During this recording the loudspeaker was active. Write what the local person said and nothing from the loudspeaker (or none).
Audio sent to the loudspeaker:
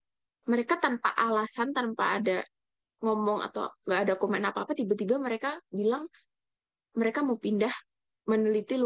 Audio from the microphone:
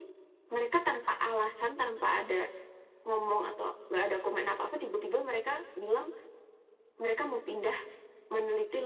none